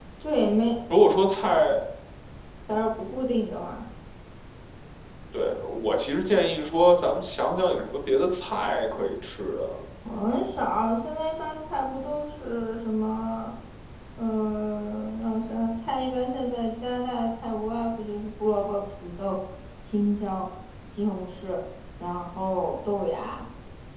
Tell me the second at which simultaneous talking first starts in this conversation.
none

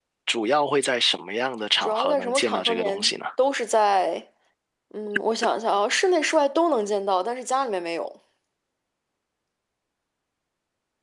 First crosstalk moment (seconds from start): 1.8 s

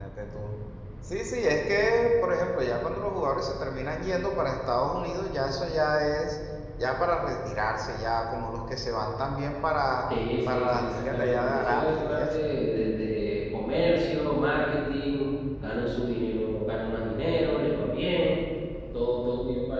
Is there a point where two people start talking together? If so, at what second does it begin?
10.5 s

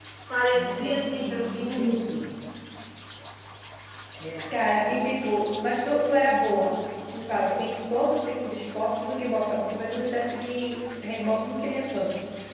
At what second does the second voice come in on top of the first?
0.5 s

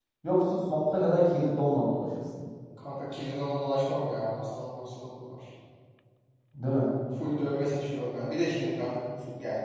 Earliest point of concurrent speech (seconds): none

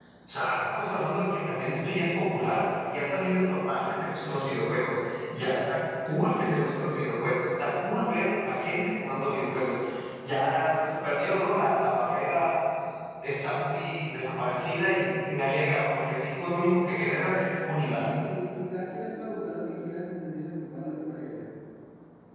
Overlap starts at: none

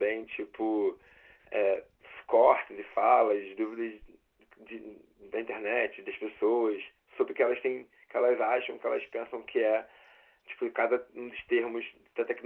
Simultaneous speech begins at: none

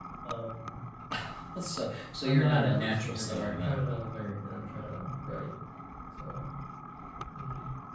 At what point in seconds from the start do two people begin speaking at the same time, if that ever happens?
2.2 s

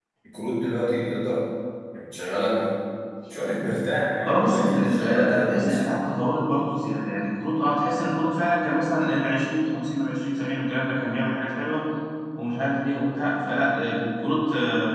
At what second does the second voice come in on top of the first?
4.2 s

